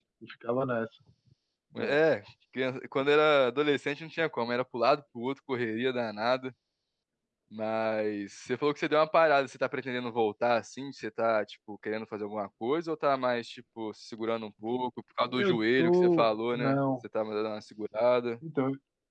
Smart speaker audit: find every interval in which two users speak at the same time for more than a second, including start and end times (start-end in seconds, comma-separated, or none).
15.4-16.8